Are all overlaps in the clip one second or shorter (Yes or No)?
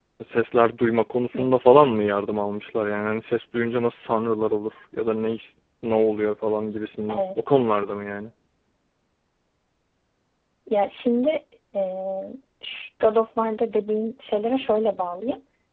Yes